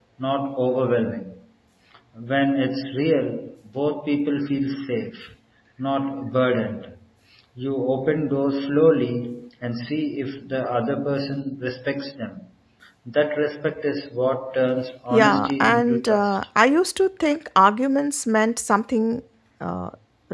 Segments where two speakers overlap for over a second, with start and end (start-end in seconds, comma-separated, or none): 15.1-16.4